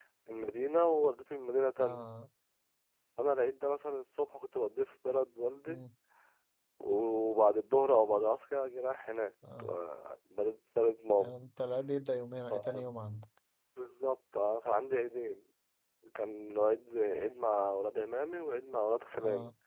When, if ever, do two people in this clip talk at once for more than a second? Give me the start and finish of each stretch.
none

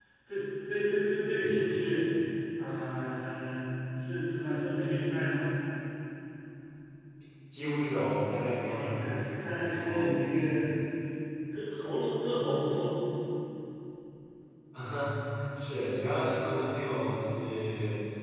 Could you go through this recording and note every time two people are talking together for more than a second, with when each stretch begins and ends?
8.6-10.2

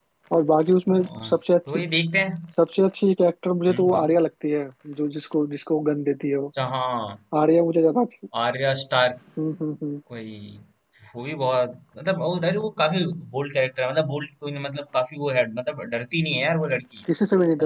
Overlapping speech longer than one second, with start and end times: none

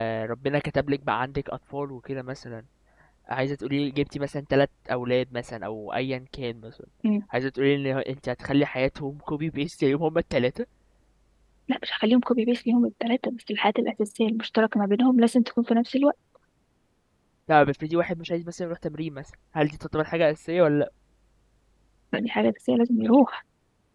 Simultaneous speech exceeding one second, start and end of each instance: none

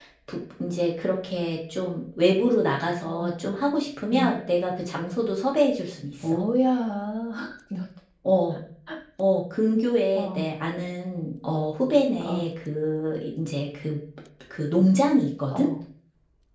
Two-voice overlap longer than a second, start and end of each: none

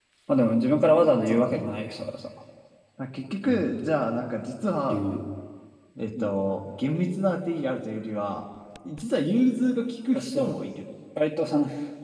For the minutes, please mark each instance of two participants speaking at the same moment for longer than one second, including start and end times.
none

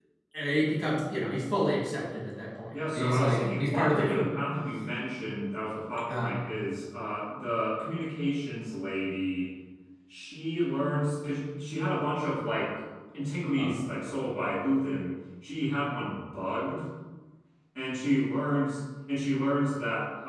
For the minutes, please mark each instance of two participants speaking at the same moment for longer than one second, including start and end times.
2.9-4.3

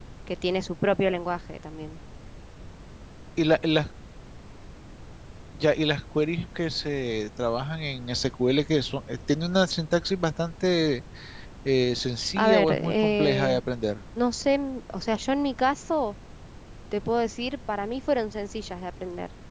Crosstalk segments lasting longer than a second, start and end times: 12.4-13.6

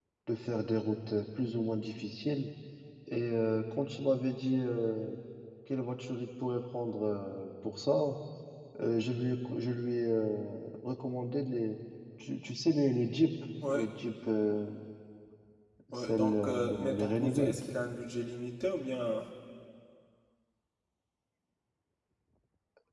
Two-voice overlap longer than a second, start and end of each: 15.9-17.6

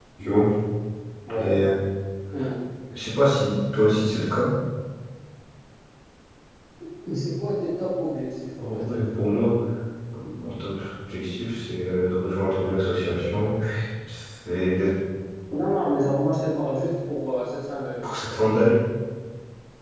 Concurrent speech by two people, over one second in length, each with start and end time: none

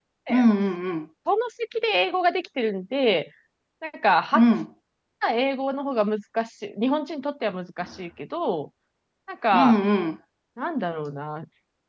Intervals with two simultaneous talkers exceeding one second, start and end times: none

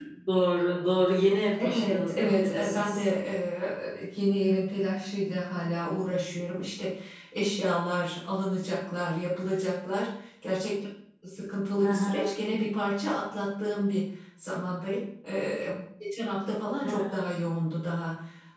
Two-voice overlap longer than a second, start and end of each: 1.6-3.0

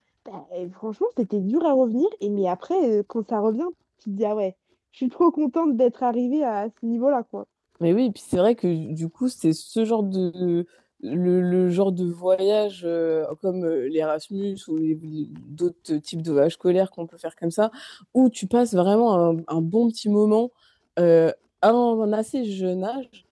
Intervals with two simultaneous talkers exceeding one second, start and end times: none

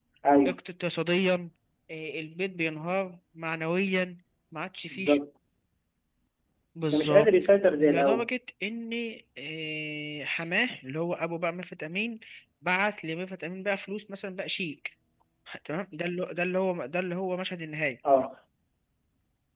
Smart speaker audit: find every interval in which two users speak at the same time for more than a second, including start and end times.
none

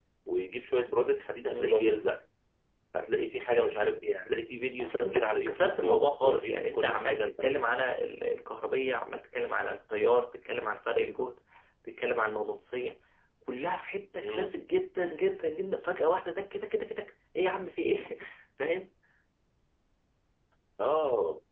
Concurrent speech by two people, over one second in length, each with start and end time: 4.8-7.8

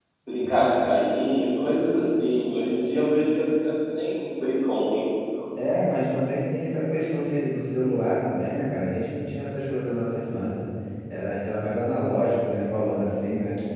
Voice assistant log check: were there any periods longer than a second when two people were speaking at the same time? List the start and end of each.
none

